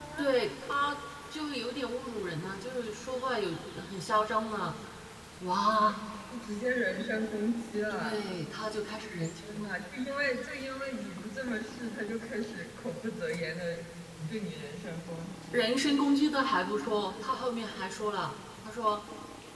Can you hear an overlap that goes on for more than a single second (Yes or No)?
No